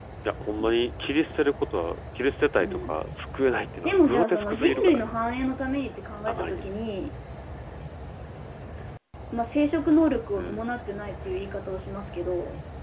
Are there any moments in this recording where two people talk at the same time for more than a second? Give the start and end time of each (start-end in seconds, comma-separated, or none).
3.8-5.1